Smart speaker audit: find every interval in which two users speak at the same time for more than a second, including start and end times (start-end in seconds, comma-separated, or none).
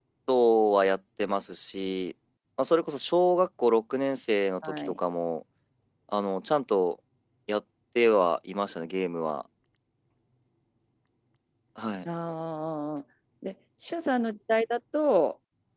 none